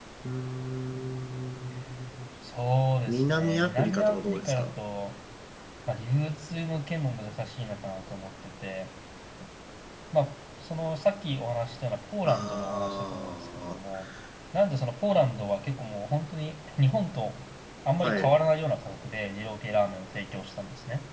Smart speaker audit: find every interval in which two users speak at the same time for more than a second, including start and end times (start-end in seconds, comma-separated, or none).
3.1-4.7, 12.2-14.1